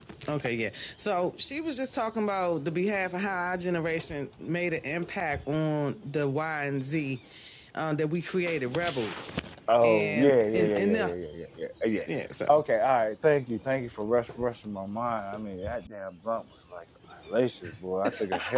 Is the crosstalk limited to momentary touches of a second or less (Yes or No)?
No